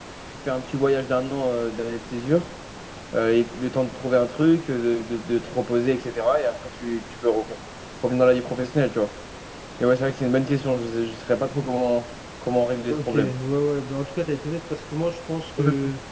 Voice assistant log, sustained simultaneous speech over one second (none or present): none